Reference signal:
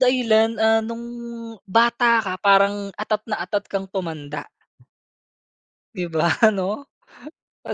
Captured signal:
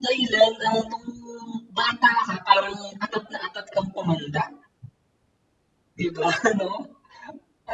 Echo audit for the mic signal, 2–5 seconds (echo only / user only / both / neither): echo only